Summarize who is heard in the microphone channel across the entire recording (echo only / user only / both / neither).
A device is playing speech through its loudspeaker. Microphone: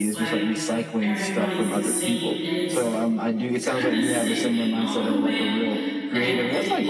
both